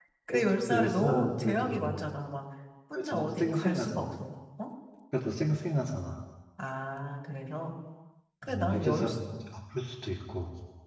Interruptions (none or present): present